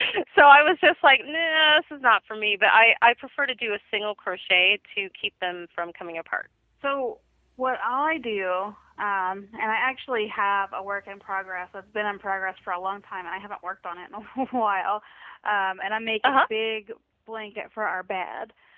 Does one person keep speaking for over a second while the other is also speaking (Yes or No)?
No